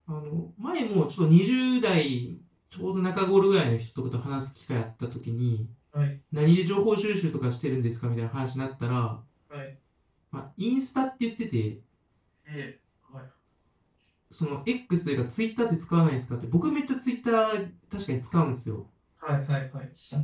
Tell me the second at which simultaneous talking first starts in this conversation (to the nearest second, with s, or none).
none